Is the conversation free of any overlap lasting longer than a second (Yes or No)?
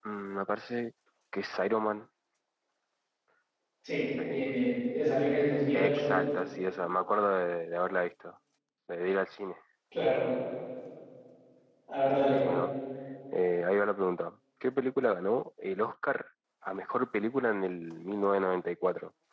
Yes